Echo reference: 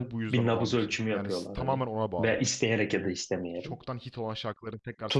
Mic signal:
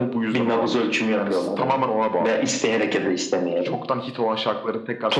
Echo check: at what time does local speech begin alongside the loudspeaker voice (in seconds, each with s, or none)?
none